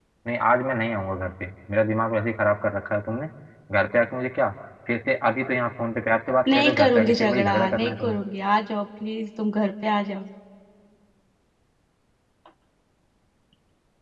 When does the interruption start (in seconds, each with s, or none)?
6.5 s